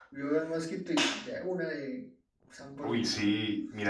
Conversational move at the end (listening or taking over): taking over